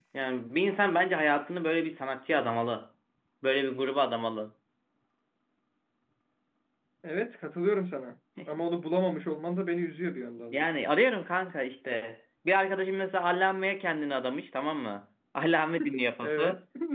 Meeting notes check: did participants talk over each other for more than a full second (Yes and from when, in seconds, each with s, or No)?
No